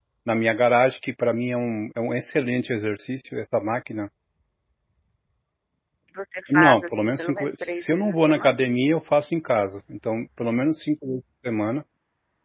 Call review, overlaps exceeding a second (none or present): present